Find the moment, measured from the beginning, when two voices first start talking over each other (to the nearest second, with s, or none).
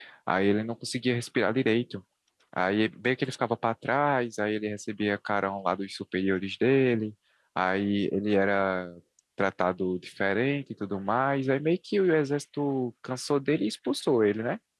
none